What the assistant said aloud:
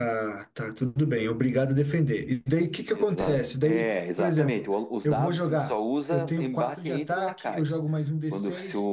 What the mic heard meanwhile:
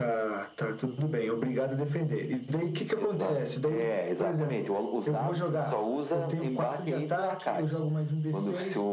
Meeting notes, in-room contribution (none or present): none